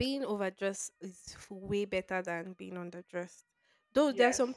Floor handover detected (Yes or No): No